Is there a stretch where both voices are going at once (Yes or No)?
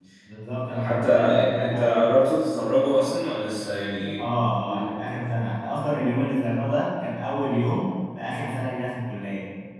Yes